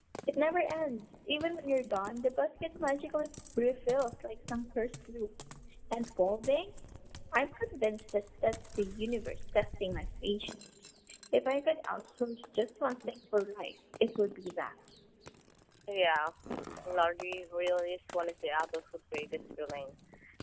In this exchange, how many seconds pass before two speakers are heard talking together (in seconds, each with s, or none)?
none